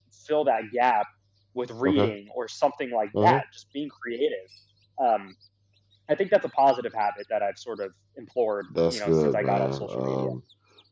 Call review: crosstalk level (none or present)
present